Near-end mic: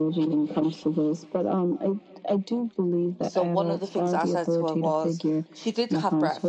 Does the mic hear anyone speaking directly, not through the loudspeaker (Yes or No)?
Yes